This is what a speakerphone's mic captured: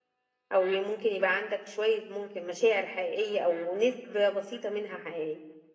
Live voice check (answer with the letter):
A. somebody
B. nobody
A